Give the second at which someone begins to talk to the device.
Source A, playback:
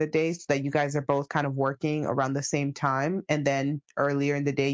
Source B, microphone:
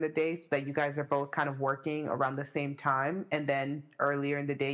none

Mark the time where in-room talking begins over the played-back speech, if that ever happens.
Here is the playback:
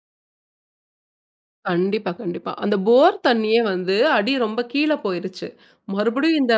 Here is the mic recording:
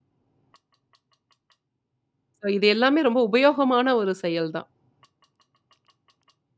2.4 s

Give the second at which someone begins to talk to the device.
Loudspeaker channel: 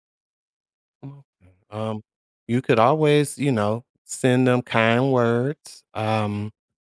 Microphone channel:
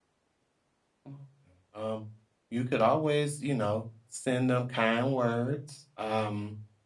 none

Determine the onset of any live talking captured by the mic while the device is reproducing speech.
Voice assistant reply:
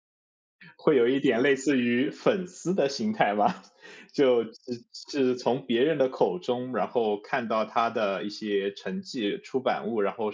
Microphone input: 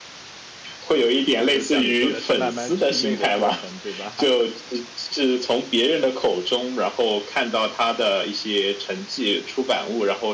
1.4 s

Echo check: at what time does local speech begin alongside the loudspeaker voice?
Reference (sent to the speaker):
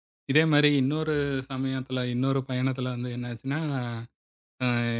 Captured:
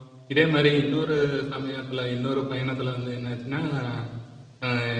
none

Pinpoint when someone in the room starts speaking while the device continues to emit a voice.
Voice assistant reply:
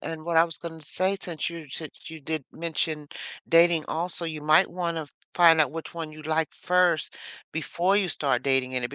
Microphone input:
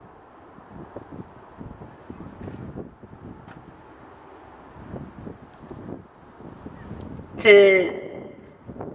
7.4 s

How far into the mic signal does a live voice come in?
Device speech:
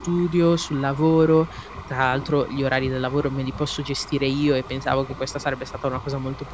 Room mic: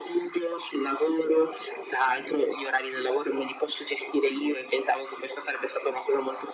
none

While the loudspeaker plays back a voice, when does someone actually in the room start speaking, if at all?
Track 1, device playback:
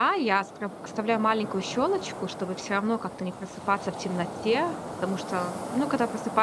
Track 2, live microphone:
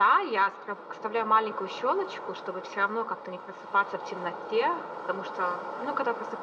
none

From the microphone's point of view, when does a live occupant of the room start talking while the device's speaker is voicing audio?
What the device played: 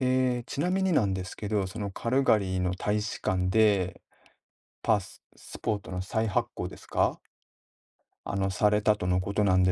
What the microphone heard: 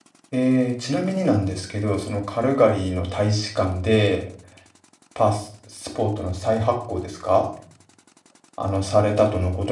none

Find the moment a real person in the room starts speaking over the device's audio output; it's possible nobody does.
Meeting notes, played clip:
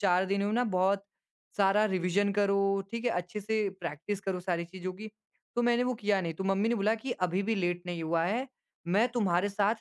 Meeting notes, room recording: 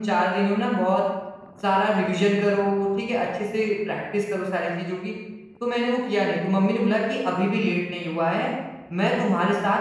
none

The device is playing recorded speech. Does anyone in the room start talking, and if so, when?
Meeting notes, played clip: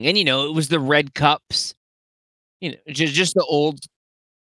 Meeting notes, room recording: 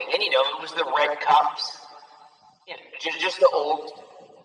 none

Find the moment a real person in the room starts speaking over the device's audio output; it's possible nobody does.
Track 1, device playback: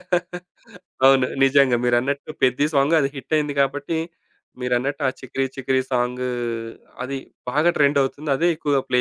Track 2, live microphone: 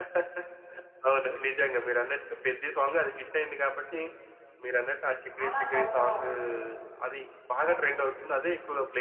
5.3 s

